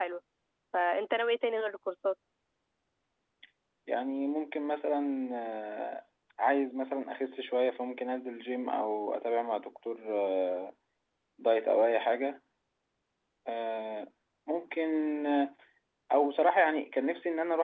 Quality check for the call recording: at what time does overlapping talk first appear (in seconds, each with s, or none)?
none